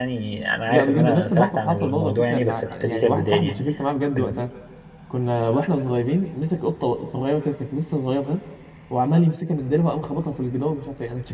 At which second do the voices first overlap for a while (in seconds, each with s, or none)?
0.7 s